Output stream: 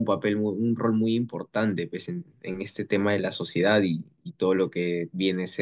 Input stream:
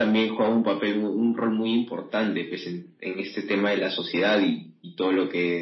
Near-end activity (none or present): none